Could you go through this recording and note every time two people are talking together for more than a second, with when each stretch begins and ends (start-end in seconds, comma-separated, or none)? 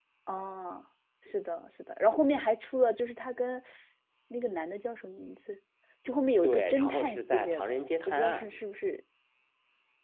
6.4-8.5